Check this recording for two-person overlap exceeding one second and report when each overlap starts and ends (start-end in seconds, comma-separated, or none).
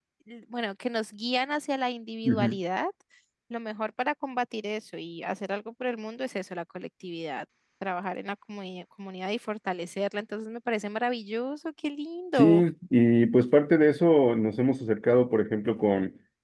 none